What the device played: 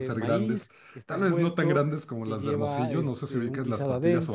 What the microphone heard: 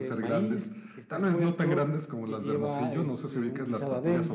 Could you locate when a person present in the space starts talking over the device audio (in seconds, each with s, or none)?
none